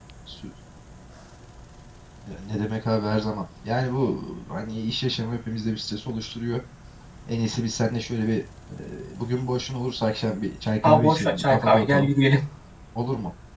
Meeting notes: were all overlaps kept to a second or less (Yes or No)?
No